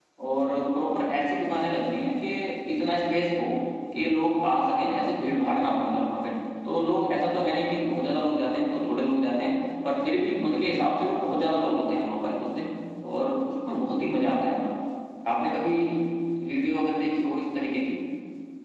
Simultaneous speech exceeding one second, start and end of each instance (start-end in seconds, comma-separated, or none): none